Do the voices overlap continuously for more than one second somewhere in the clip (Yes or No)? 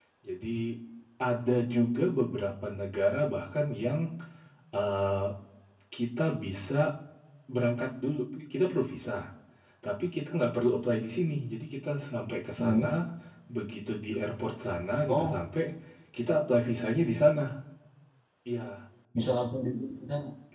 No